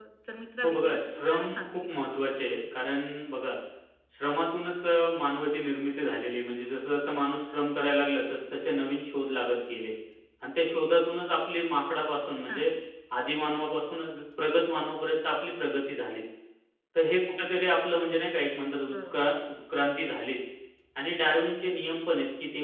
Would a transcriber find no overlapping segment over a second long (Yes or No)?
No